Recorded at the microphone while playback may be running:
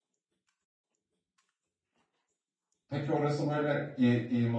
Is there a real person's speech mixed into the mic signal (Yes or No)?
Yes